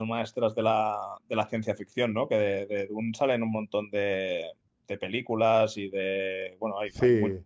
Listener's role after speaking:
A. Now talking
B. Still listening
B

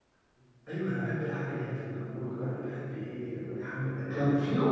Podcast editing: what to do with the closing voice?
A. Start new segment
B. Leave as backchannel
A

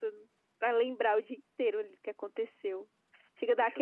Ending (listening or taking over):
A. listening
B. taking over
A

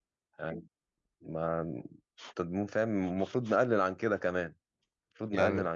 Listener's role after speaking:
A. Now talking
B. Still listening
B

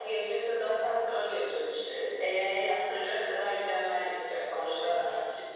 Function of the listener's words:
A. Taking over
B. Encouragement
B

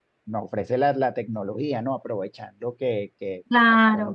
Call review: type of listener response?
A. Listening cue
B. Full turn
B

